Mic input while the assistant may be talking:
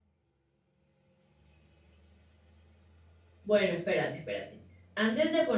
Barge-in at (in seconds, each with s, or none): 3.4 s